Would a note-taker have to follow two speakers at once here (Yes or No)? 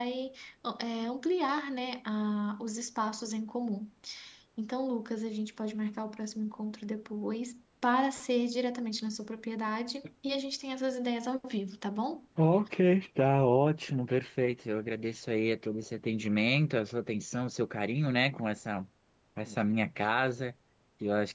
No